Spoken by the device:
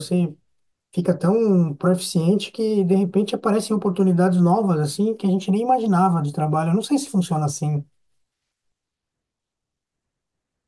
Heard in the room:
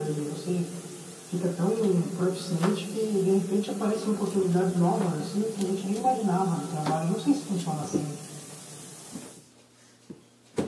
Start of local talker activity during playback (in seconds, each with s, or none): none